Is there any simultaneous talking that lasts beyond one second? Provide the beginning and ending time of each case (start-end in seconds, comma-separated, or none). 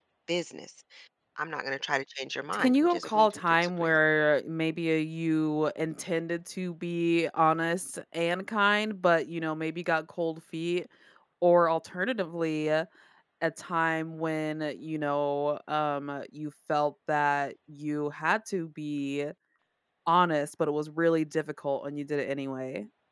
2.6-3.9